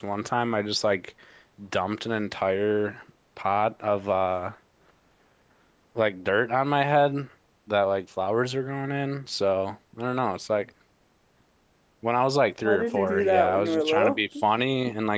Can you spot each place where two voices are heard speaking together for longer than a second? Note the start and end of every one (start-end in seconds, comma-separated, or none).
12.6-14.2